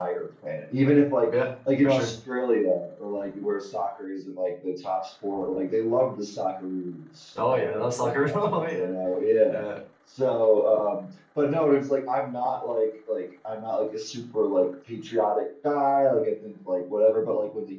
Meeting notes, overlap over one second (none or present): present